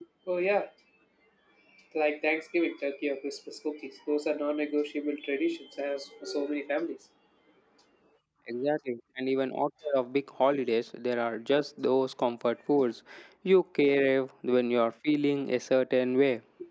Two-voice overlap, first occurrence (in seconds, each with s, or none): none